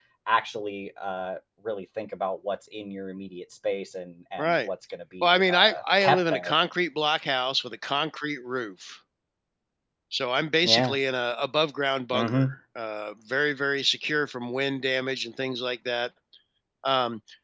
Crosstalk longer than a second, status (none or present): present